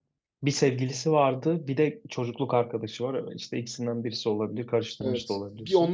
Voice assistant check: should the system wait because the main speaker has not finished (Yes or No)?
No